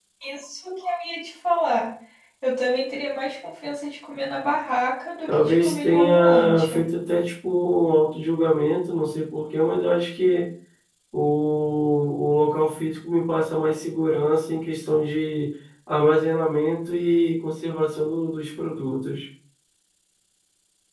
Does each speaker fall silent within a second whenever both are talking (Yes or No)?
No